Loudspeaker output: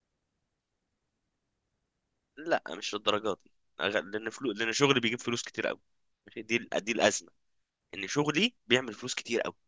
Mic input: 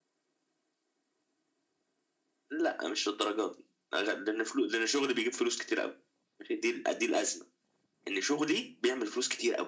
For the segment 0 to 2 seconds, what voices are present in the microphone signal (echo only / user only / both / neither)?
neither